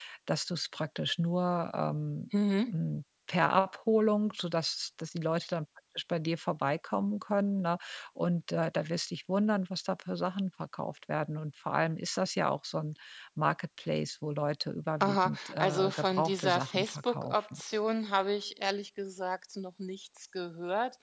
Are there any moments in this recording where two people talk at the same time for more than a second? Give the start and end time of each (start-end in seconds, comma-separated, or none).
15.0-17.6